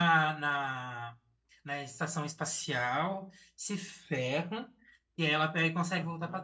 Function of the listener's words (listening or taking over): listening